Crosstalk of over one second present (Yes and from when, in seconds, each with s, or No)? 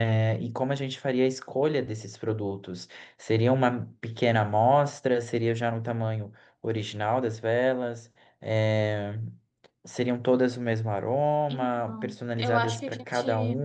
Yes, from 11.5 s